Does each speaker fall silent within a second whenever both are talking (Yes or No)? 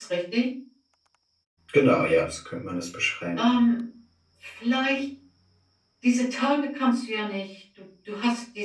Yes